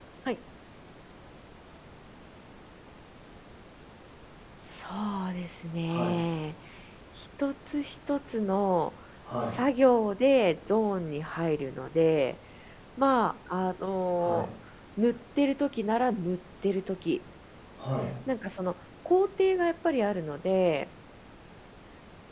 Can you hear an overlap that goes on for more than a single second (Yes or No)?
No